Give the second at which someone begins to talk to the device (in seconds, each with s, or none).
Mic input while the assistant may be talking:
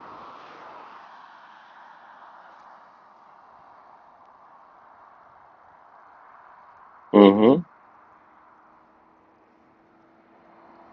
7.1 s